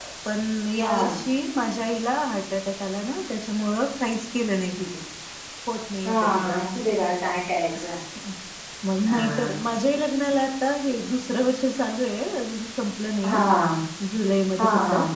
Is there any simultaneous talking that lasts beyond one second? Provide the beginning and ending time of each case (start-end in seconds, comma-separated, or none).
none